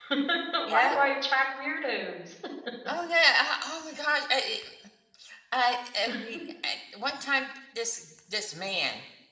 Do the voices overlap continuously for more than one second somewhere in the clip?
No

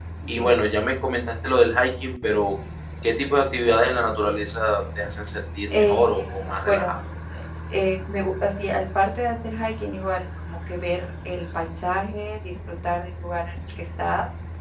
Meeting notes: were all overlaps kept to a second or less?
No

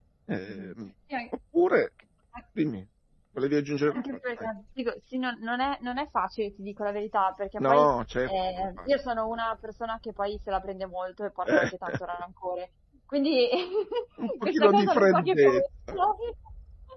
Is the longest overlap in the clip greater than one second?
Yes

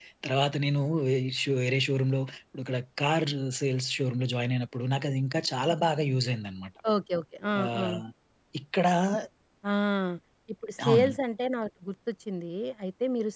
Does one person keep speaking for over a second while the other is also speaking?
No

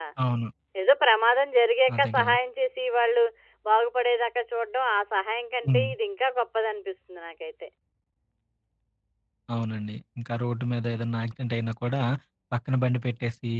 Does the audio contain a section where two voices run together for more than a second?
No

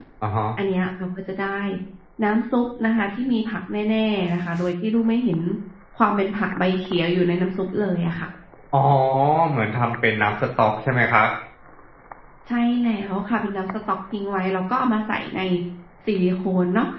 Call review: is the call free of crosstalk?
Yes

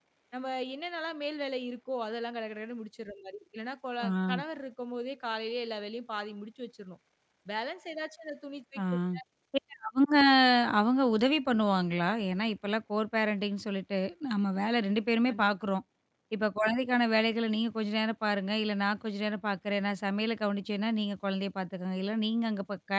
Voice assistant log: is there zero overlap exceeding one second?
Yes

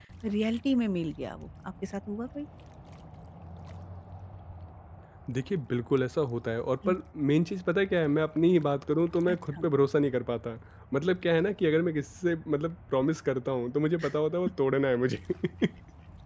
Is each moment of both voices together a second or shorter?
Yes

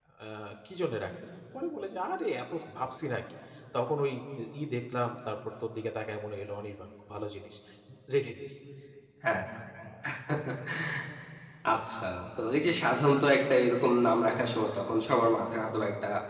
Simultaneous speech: No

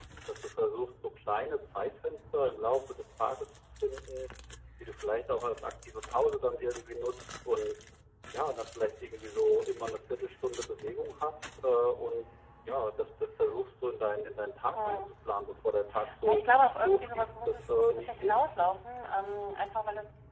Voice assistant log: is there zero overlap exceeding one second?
No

